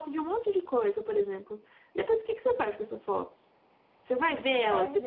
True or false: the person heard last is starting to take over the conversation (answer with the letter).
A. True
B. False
A